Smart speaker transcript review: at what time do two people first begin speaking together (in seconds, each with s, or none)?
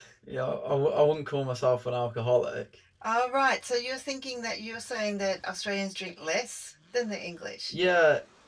none